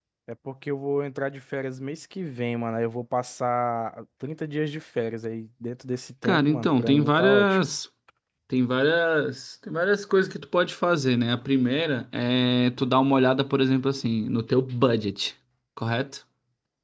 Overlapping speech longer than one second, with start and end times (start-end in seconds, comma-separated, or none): 6.2-7.7